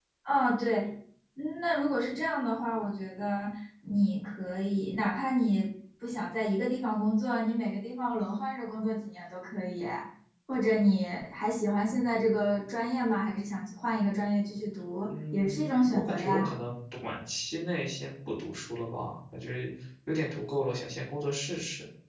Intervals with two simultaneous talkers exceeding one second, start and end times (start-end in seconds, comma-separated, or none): 15.1-16.5